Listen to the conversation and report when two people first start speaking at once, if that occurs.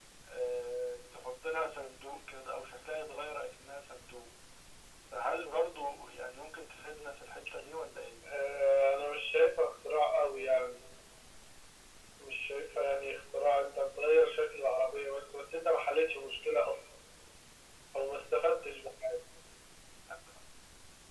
none

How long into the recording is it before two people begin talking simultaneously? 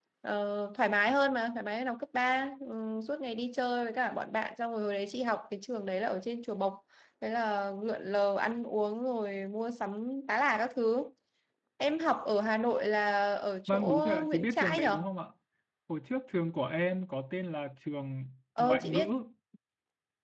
13.7 s

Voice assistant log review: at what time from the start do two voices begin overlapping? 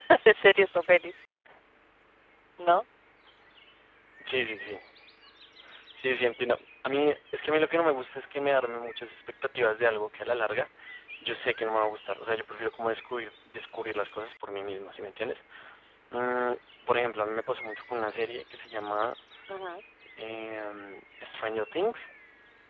none

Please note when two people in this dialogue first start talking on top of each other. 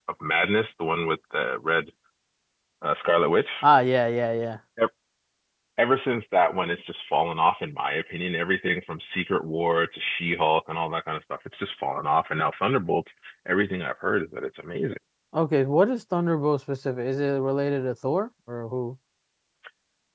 none

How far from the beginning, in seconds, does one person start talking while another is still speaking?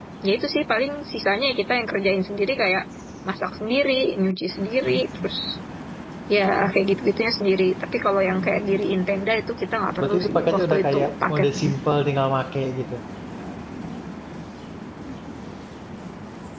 10.0 s

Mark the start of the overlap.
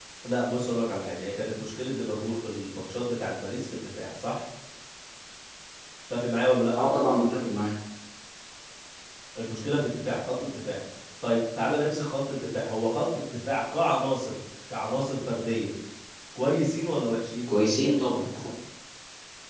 none

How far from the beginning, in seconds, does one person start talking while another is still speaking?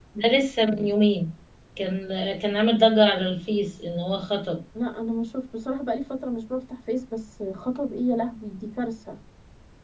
none

